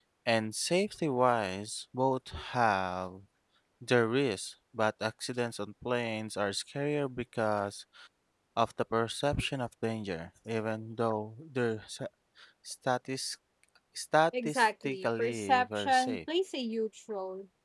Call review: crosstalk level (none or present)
present